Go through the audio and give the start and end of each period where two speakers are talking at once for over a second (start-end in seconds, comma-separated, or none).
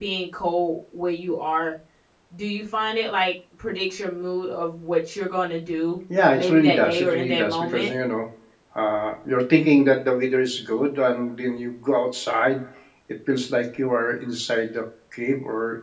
6.3-7.9